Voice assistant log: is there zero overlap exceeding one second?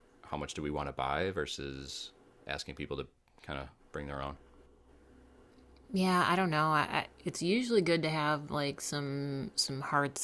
Yes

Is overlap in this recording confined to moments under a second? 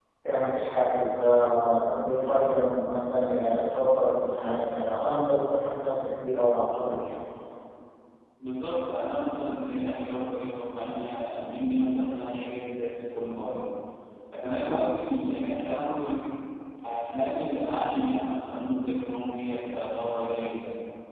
Yes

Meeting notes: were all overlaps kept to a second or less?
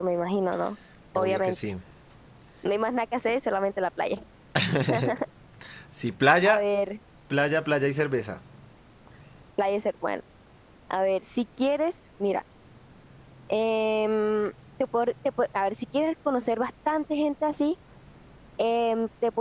Yes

